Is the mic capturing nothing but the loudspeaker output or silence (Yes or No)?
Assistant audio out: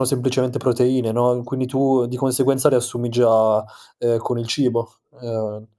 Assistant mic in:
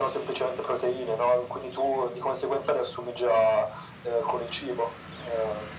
Yes